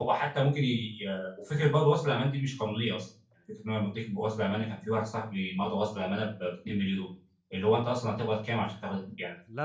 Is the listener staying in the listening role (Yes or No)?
No